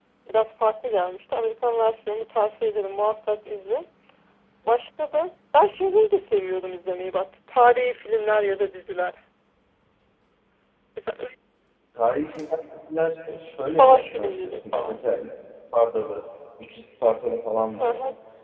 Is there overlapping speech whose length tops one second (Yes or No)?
Yes